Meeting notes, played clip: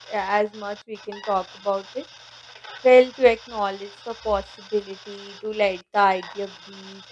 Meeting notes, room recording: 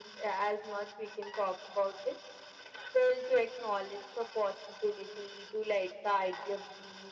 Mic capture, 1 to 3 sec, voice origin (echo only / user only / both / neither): echo only